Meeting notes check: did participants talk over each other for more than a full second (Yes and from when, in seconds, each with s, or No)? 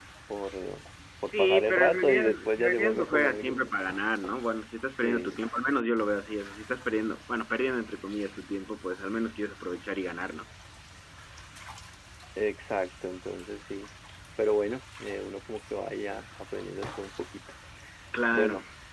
Yes, from 1.2 s